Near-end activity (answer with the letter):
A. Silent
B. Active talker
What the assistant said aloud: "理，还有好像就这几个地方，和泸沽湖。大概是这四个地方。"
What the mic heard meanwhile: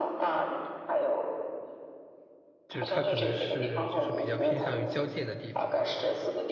B